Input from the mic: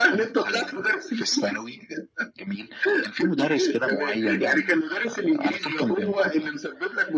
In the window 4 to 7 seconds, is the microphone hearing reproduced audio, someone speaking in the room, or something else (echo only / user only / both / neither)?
echo only